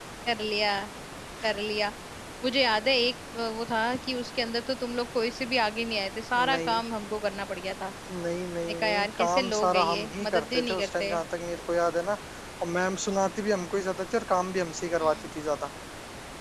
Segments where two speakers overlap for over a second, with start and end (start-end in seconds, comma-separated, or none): 8.6-11.1